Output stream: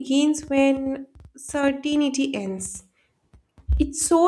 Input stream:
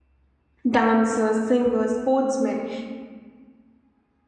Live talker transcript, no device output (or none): dancers, singers, sportsmen,